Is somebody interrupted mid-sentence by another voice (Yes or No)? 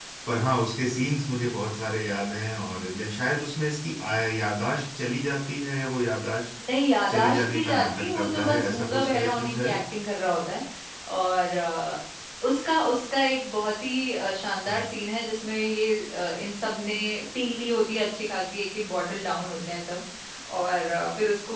Yes